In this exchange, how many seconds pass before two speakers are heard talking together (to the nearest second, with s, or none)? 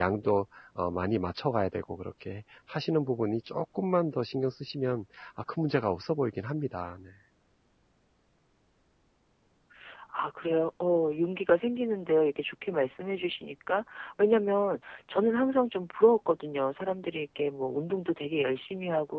none